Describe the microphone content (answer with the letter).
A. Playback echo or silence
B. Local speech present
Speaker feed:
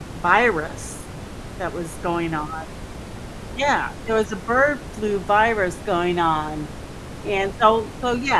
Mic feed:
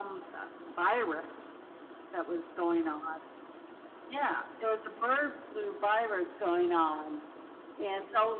A